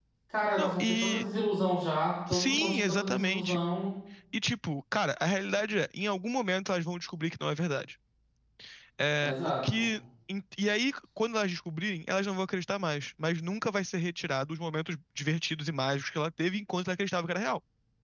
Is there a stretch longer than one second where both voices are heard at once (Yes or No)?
Yes